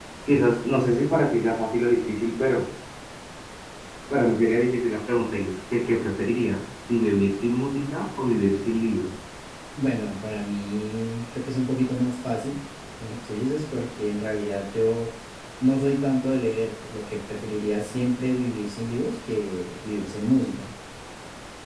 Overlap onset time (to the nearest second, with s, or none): none